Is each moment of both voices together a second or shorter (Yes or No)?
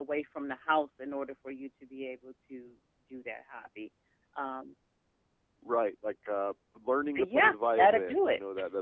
No